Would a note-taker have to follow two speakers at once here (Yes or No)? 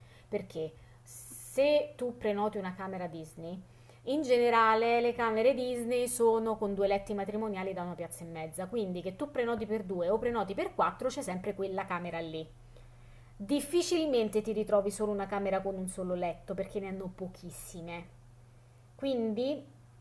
No